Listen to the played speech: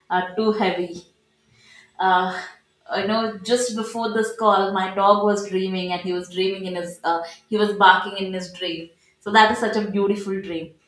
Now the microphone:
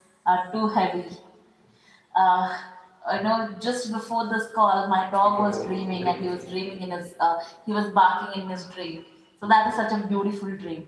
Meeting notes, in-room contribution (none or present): present